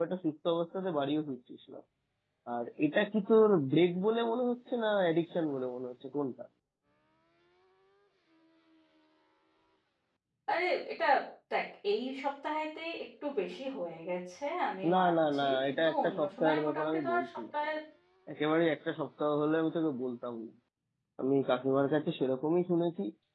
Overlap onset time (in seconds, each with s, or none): 14.8 s